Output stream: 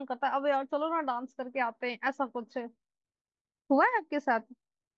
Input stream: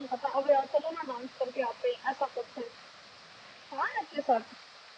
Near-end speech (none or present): none